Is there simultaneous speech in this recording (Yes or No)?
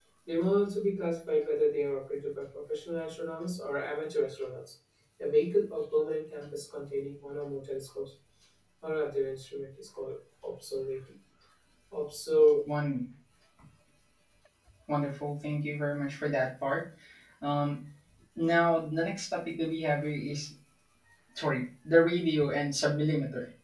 No